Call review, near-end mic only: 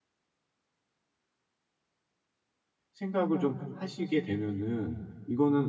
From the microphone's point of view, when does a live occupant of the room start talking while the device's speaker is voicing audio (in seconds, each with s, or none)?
2.9 s